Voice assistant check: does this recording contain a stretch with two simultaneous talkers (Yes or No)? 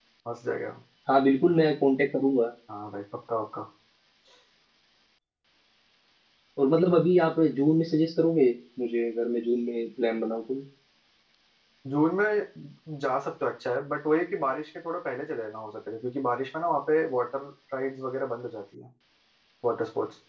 No